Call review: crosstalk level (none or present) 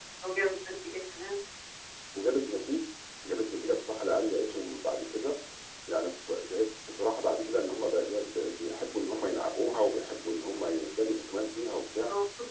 none